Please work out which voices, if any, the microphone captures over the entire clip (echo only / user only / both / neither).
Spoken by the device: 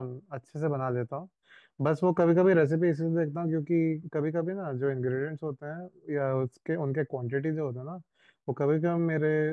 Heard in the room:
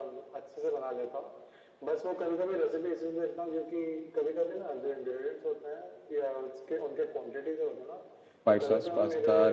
both